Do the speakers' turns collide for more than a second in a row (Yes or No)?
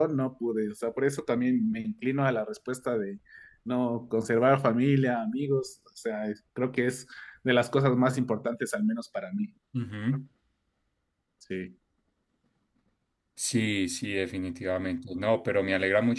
No